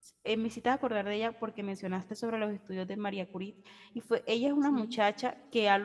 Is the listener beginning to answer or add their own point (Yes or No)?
No